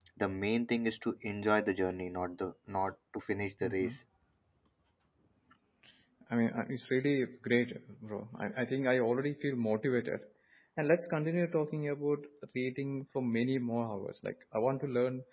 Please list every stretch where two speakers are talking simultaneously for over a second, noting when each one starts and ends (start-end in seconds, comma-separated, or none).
none